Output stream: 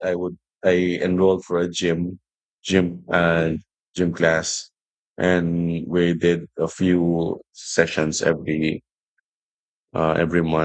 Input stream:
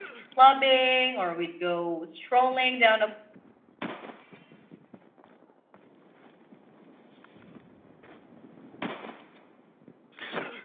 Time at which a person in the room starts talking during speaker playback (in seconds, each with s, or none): 0.3 s